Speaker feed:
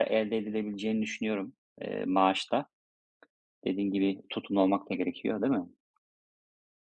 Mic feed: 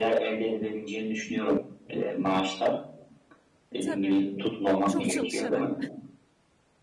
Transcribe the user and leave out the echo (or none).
E, tabii, çok çalışarak.